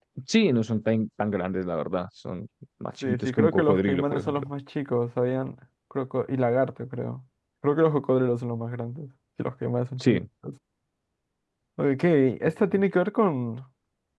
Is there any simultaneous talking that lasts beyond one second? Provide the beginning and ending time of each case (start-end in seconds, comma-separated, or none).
3.0-4.5